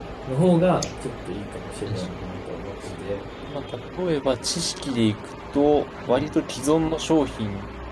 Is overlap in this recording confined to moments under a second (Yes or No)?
Yes